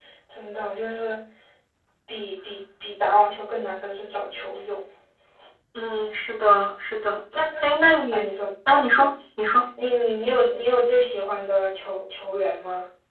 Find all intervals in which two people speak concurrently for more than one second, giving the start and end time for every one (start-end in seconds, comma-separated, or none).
none